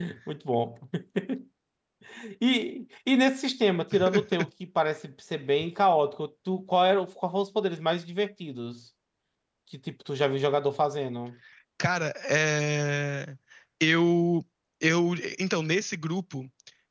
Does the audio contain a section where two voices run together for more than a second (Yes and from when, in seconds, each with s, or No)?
No